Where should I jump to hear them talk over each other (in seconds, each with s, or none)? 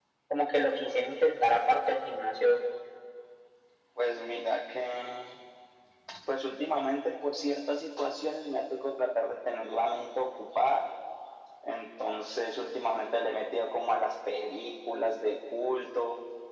none